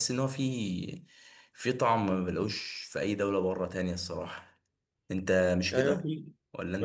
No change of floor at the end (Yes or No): No